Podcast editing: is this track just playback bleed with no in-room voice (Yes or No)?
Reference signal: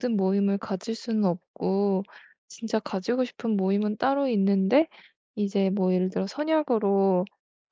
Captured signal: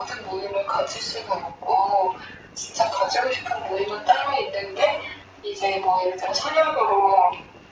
Yes